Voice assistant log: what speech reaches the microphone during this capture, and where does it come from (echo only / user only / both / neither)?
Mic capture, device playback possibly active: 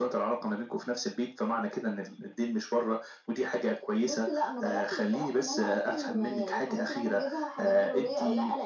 echo only